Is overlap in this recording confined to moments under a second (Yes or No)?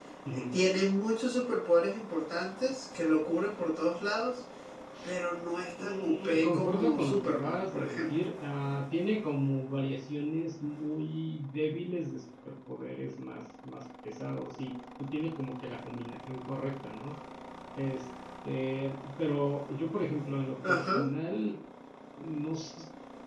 No